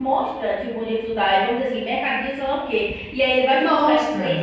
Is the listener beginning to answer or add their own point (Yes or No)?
No